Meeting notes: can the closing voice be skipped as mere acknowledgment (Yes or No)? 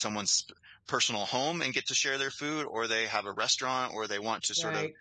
Yes